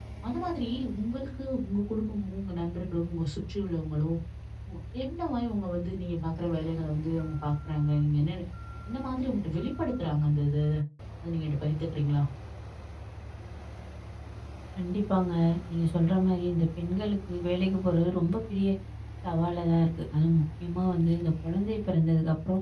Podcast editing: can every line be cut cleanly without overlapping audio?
Yes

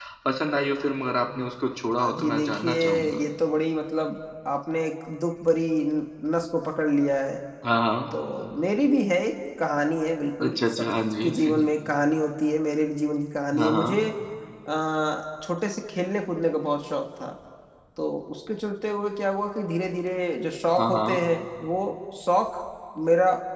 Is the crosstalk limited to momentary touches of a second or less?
No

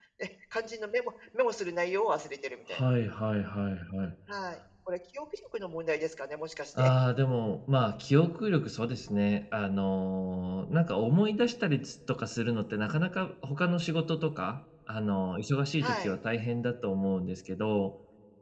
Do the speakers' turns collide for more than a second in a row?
No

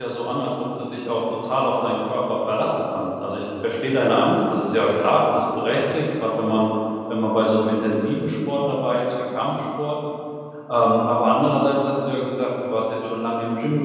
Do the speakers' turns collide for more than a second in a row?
No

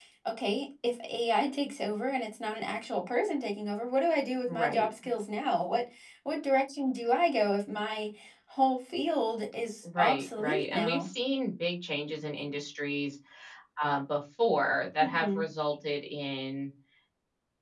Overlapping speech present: Yes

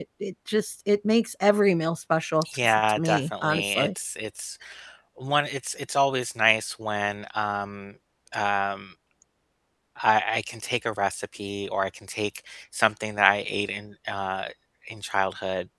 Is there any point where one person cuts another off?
Yes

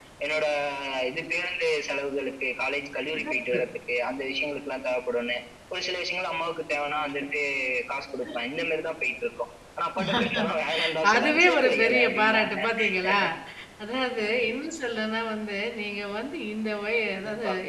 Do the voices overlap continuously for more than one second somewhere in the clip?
Yes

